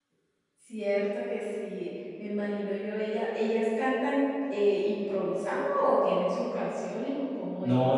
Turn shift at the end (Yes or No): Yes